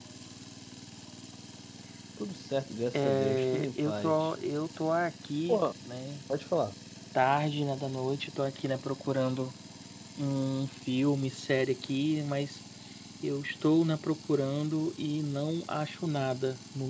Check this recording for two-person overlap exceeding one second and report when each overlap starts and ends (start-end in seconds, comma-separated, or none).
3.0-4.3